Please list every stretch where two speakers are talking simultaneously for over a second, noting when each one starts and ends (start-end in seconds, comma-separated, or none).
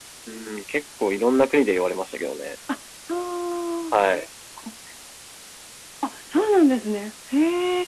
none